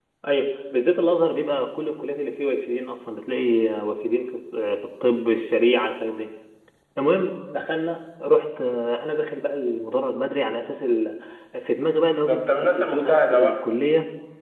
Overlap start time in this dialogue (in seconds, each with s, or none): 12.2 s